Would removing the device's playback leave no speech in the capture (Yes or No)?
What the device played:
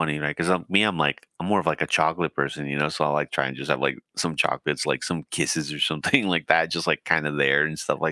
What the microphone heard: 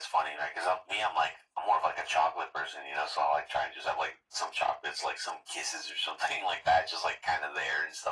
Yes